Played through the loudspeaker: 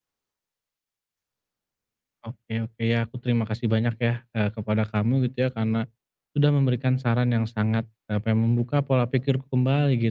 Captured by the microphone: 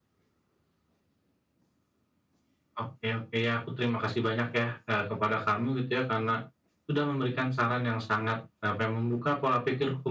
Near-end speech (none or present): none